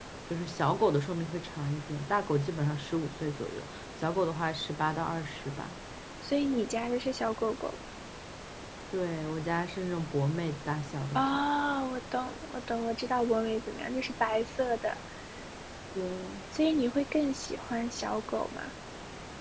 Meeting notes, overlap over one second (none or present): none